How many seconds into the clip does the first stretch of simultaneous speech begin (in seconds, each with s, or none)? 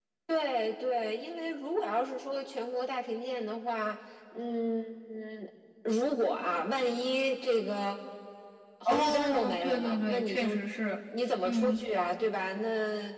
8.8 s